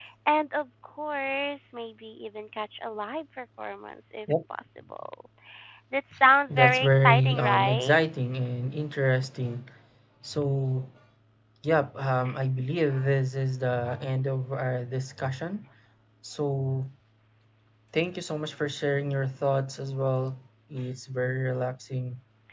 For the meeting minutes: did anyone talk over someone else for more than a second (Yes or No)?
Yes